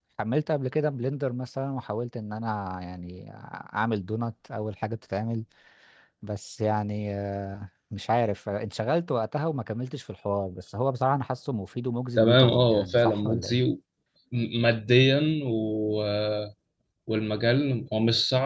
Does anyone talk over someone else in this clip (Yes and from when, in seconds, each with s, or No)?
Yes, from 12.2 s